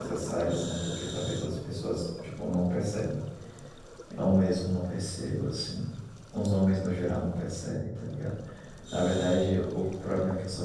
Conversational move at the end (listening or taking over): listening